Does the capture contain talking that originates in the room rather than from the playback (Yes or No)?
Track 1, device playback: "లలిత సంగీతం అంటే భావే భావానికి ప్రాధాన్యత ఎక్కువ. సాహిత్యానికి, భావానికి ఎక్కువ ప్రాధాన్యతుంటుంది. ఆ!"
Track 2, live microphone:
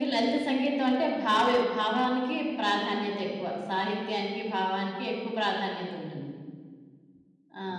No